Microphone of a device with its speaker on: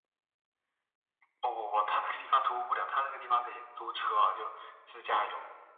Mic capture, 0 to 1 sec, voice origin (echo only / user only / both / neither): neither